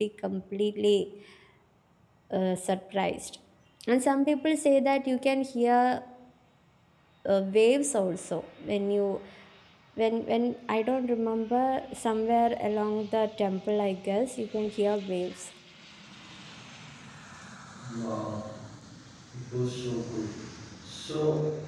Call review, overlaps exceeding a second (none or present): none